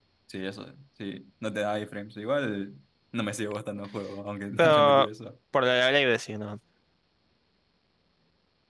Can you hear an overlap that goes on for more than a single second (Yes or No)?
No